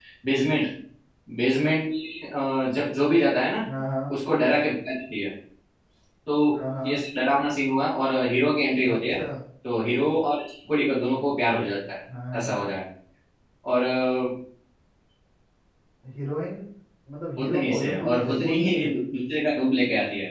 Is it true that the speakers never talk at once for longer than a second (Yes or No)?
No